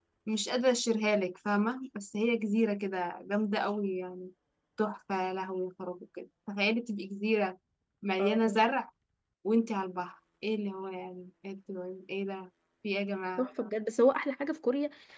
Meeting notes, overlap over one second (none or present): none